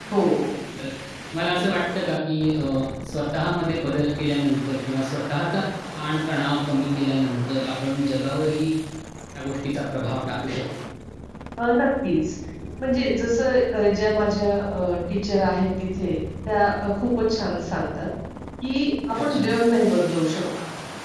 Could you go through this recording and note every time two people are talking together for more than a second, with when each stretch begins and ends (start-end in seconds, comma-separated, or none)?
none